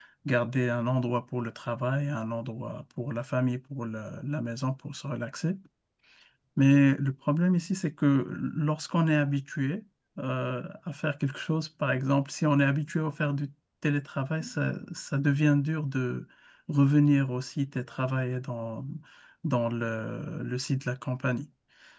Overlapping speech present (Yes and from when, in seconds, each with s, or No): No